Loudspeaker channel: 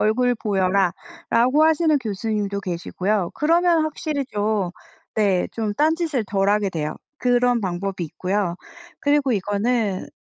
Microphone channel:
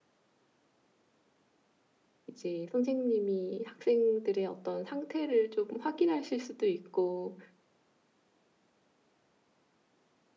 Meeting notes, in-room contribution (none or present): present